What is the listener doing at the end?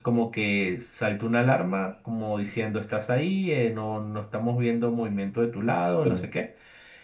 listening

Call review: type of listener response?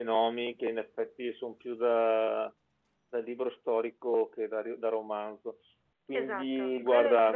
taking over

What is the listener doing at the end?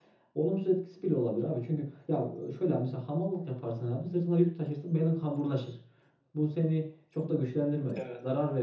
listening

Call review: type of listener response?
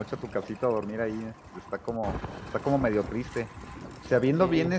listening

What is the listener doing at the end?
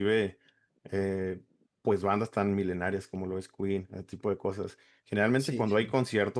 listening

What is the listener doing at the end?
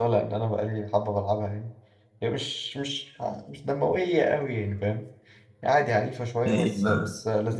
taking over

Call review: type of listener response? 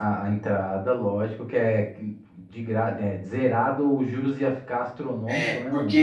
taking over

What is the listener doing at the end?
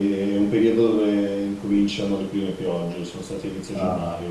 taking over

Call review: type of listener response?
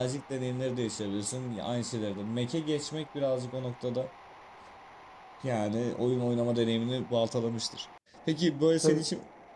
listening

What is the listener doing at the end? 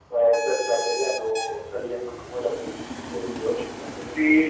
taking over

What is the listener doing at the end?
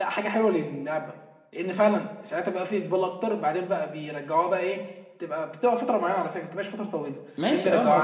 taking over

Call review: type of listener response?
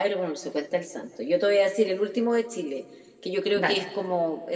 listening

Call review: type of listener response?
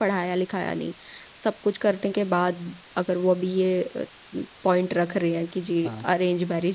listening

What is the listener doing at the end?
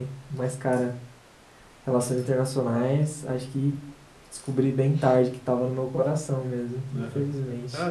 taking over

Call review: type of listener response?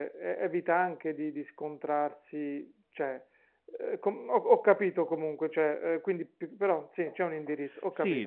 taking over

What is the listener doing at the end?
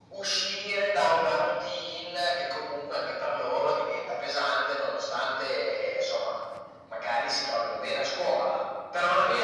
taking over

